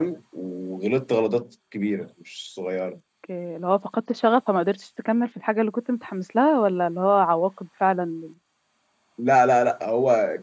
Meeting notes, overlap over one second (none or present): none